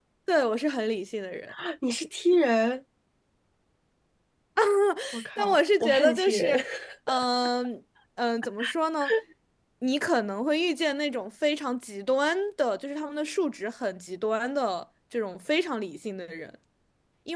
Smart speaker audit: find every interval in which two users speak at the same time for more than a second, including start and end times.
5.4-6.6

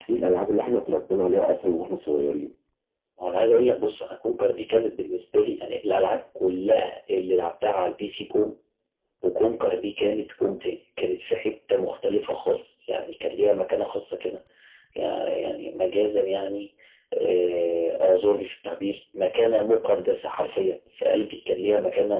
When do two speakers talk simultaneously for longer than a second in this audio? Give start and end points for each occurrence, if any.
none

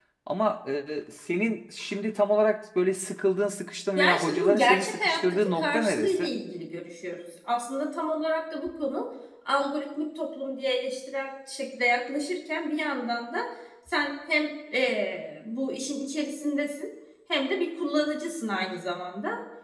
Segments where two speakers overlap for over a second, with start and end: 4.0-6.3

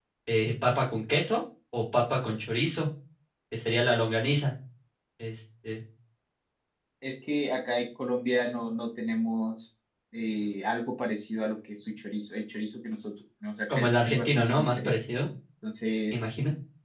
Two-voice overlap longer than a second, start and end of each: 13.7-14.9

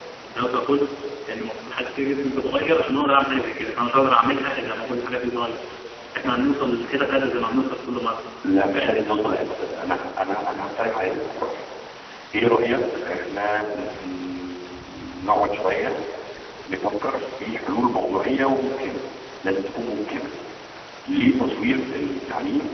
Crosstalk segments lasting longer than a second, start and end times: none

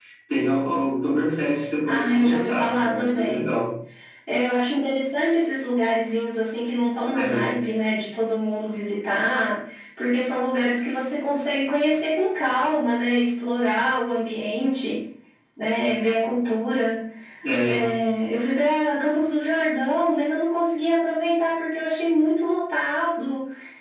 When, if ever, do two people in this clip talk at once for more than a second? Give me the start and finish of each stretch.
1.9-3.5

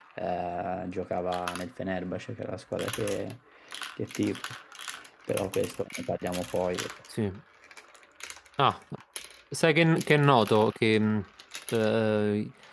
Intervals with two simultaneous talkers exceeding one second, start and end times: none

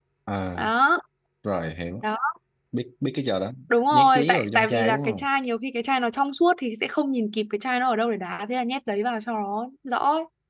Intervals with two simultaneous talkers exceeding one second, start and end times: 3.9-5.3

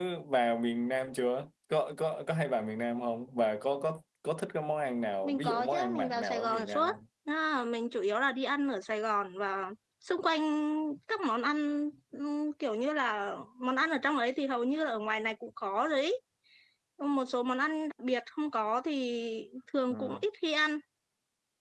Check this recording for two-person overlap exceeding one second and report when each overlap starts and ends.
5.2-7.0

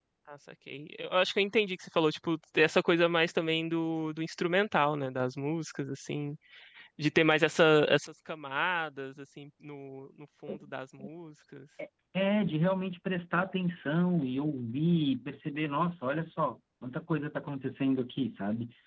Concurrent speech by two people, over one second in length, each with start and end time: none

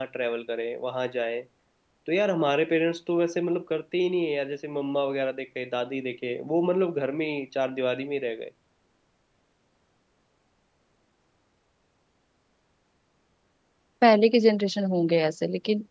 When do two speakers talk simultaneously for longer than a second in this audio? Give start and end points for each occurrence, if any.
none

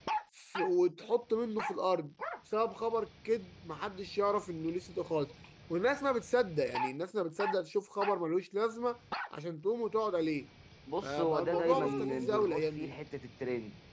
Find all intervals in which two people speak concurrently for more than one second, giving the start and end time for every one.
11.0-12.9

